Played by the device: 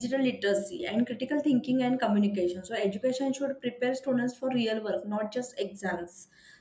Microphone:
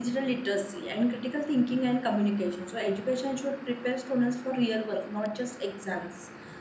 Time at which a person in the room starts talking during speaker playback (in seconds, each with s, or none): none